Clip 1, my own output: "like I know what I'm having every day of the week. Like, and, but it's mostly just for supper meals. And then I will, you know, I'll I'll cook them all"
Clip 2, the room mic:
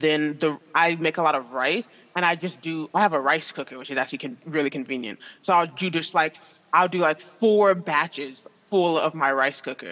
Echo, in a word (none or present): none